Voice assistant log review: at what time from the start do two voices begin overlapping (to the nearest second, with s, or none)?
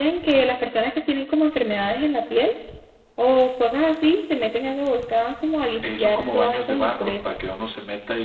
6 s